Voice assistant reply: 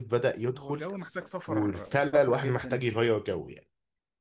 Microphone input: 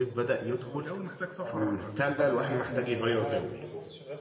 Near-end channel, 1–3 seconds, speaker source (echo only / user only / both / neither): both